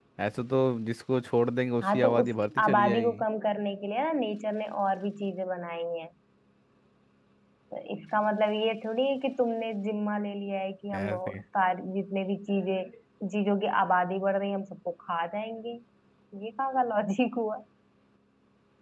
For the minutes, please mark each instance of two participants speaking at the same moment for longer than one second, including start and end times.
1.8-3.2

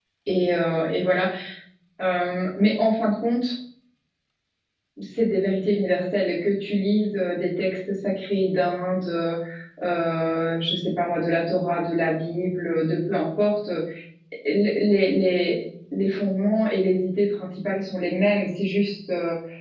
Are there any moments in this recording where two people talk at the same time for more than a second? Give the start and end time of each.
none

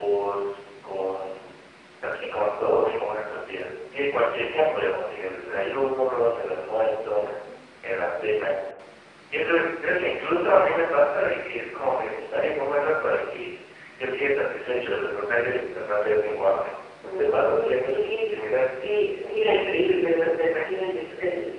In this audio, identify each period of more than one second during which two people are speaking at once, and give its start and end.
17.2-18.4

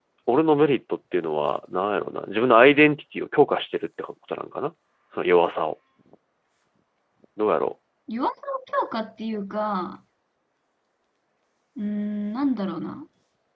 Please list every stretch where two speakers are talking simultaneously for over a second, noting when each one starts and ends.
none

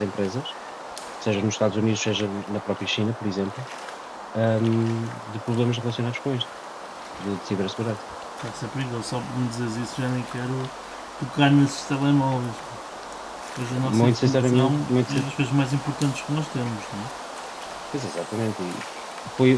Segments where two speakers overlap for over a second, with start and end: 13.8-15.2

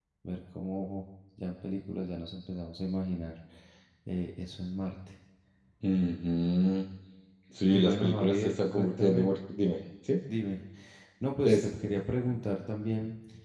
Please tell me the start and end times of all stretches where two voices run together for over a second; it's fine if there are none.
7.7-9.3

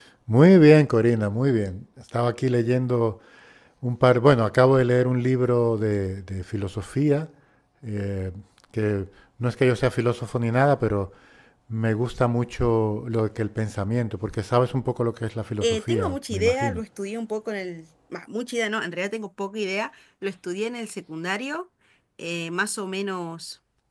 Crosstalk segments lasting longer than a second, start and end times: 15.6-16.8

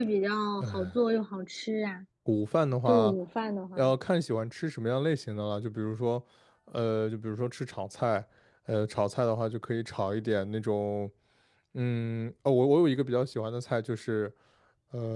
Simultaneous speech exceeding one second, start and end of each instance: none

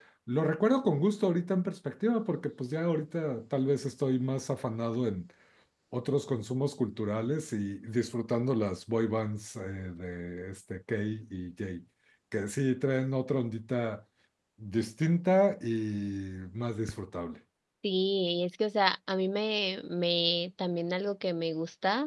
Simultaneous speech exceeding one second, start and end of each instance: none

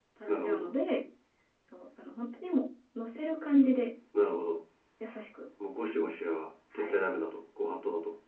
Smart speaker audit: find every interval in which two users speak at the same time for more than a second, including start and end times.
none

